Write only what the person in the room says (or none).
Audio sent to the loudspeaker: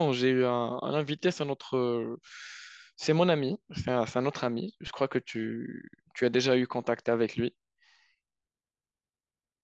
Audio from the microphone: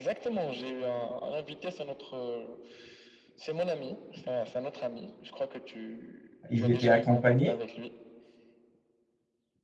Il était accompagné.